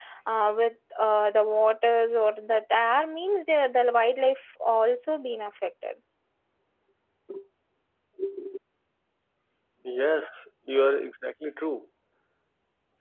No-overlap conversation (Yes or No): Yes